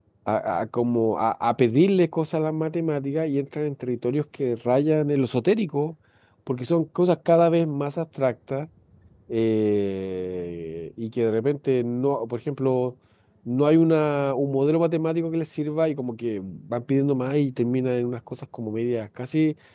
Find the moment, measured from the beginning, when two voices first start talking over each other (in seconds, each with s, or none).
none